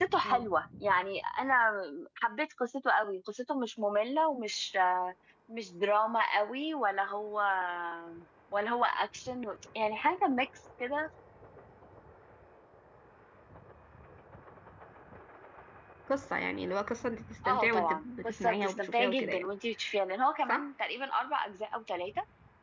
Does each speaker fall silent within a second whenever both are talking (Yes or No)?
No